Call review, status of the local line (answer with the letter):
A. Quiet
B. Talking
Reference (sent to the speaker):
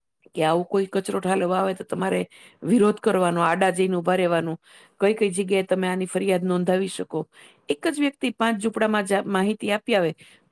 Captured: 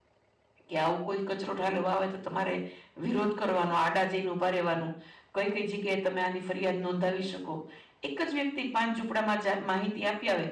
A